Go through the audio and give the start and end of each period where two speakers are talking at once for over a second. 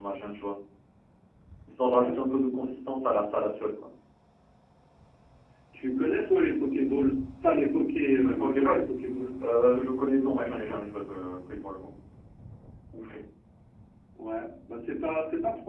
none

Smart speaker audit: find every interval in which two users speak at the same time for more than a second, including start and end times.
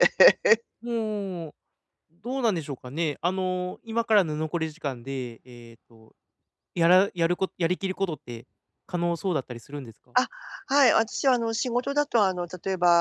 none

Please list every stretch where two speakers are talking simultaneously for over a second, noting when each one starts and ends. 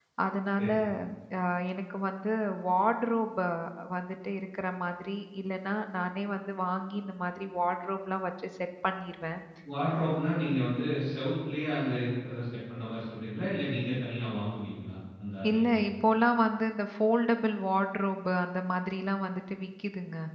none

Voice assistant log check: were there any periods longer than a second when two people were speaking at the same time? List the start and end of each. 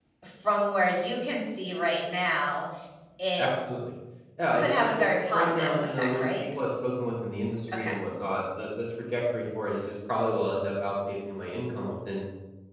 4.6-6.2

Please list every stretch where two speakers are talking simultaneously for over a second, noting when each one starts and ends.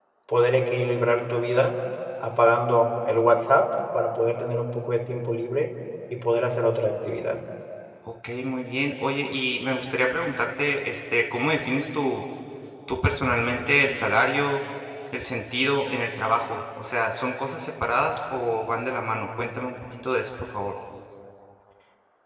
none

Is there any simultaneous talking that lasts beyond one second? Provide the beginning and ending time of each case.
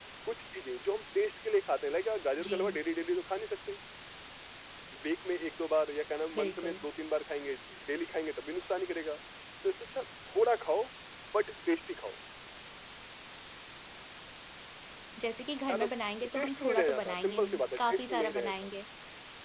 16.4-18.7

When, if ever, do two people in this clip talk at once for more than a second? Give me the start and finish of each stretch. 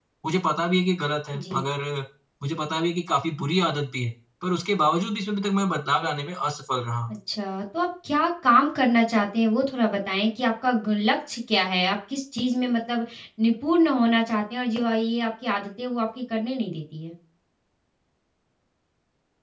none

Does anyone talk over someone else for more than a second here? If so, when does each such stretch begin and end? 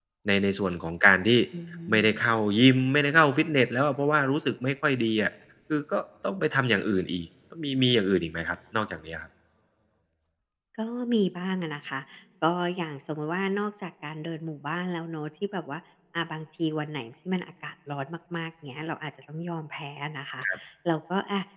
none

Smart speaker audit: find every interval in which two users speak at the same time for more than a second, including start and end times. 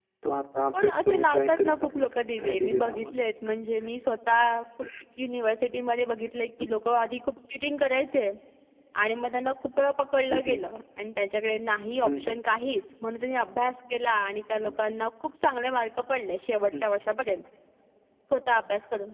0.7-3.1

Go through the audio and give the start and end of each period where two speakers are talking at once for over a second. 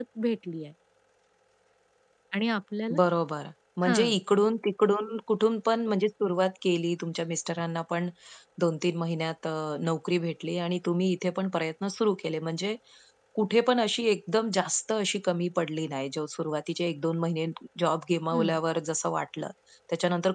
none

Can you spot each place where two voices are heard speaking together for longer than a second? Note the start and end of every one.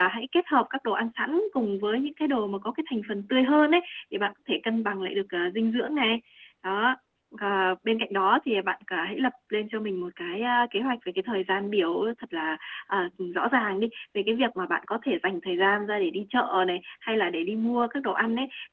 none

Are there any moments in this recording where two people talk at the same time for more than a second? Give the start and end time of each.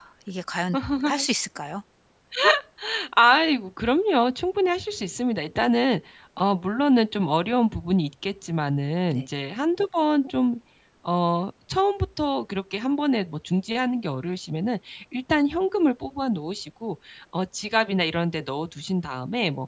none

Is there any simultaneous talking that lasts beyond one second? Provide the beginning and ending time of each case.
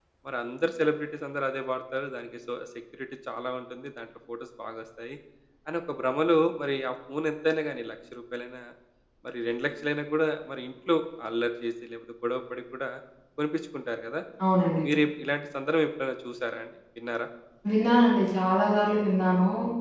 none

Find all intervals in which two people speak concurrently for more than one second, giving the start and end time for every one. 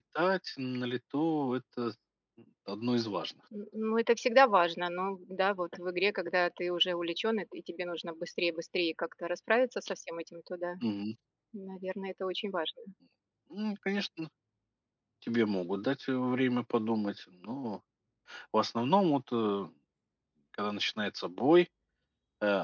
none

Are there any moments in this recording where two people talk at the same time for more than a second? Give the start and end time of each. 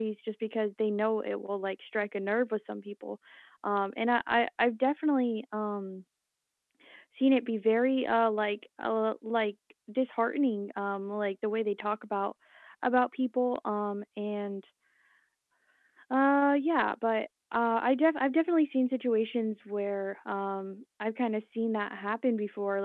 none

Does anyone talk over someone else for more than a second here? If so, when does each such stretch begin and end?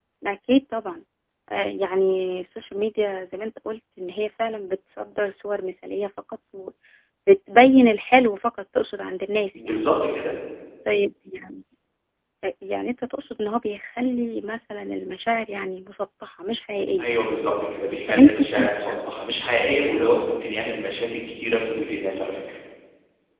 none

